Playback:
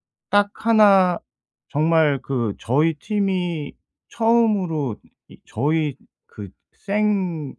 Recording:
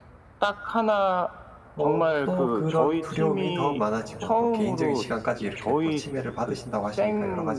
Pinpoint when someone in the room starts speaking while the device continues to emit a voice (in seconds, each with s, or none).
1.8 s